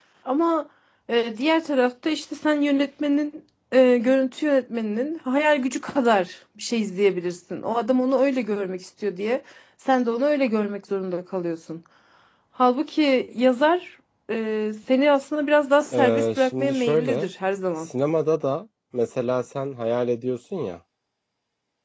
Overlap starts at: 15.9 s

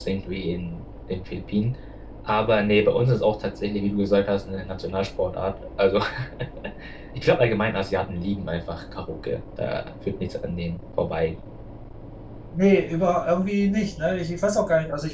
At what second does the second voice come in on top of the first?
none

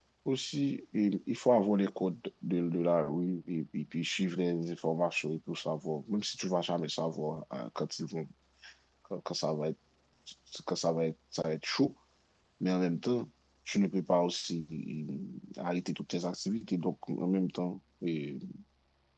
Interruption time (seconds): none

